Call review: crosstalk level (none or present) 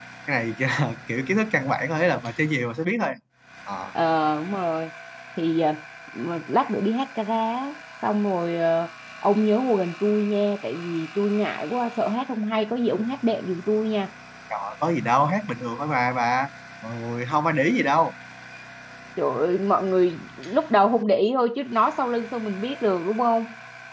none